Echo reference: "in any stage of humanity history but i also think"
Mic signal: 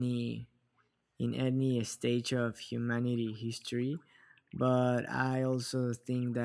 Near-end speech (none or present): none